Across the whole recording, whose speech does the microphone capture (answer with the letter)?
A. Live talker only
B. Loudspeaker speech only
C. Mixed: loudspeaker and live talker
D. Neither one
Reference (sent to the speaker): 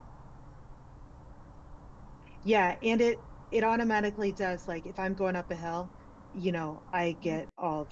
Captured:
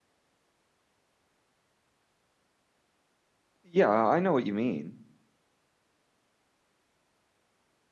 A